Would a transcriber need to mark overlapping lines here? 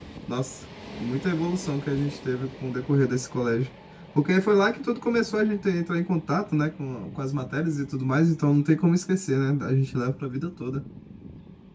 No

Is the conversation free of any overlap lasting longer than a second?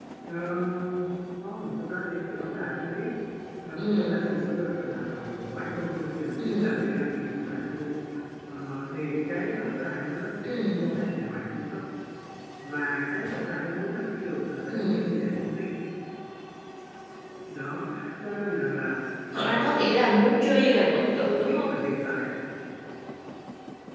Yes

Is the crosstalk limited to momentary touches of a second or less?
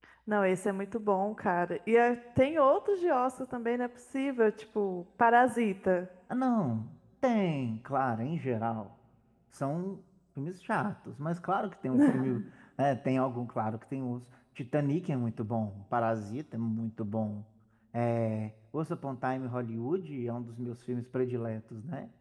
Yes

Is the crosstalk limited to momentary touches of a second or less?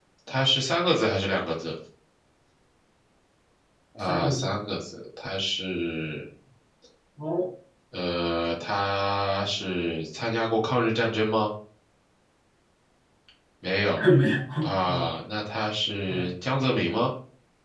Yes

